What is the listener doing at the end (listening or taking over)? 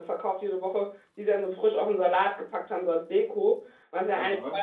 listening